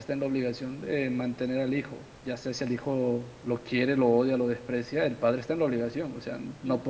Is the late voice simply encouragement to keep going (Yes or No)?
Yes